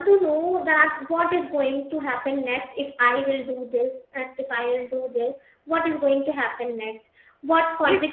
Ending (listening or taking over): listening